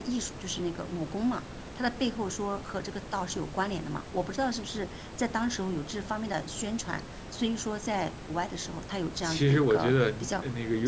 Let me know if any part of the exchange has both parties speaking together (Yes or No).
Yes